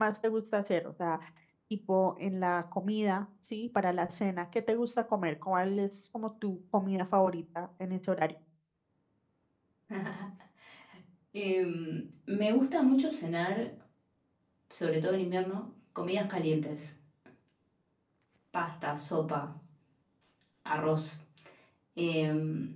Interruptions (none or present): none